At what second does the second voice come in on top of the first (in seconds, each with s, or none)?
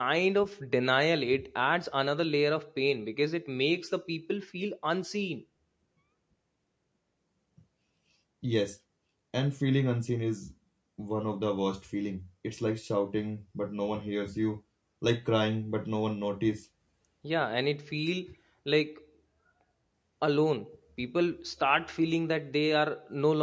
none